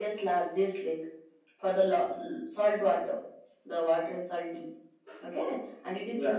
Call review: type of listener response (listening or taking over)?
listening